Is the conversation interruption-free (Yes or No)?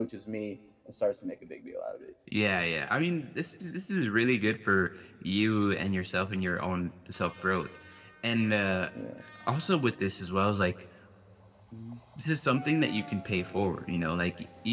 Yes